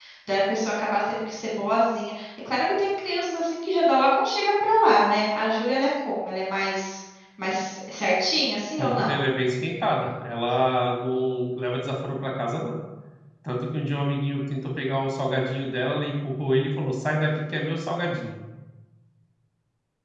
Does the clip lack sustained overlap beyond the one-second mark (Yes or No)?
Yes